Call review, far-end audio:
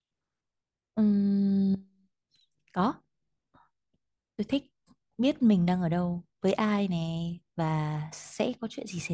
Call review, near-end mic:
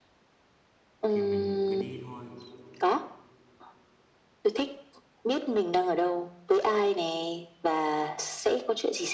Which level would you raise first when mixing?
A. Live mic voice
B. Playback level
A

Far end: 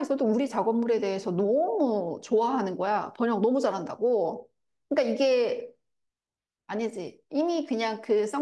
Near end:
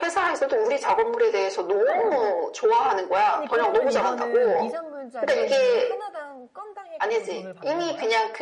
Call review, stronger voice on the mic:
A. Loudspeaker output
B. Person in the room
A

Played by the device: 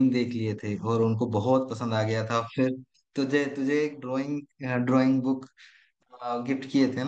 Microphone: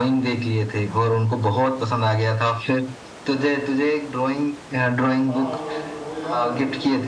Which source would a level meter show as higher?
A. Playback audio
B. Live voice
A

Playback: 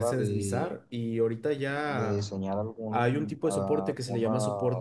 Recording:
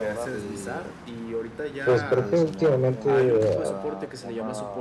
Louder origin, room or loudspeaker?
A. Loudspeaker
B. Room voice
B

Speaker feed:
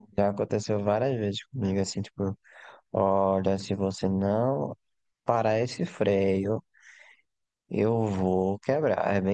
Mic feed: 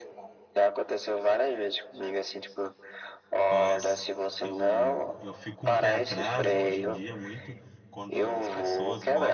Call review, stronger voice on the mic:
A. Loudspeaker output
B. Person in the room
A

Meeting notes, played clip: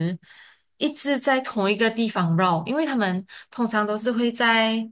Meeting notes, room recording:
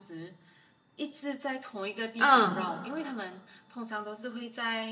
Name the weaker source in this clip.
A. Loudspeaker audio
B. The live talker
A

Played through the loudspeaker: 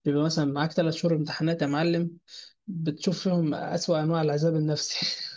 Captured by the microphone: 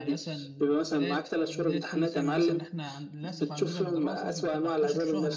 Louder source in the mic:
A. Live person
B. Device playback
B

